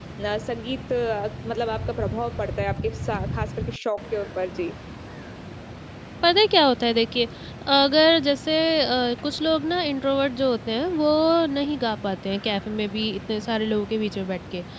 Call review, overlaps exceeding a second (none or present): none